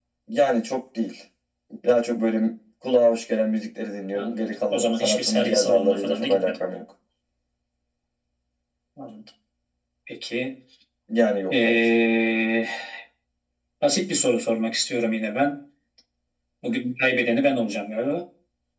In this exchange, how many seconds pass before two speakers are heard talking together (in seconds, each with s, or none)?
4.1 s